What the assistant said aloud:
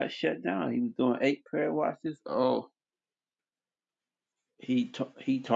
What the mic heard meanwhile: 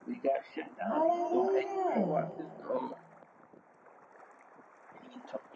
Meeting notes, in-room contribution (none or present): present